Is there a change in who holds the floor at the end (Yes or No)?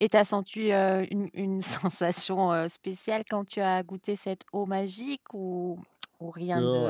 Yes